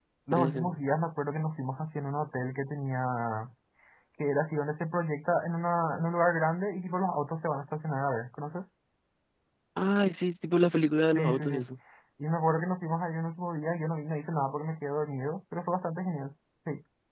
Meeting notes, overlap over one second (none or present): none